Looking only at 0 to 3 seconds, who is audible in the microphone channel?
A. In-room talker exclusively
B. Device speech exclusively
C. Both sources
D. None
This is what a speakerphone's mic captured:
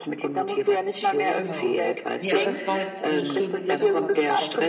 C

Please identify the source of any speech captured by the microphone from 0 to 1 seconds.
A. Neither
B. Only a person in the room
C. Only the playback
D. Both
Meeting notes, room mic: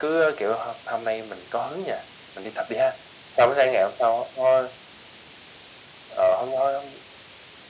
C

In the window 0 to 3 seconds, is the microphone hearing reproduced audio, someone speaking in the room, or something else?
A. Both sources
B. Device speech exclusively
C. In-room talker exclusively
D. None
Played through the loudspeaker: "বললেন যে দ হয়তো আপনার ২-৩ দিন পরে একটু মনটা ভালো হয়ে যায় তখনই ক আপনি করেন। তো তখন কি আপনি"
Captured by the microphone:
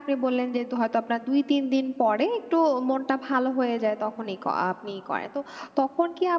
B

